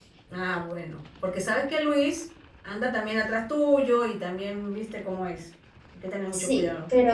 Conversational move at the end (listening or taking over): taking over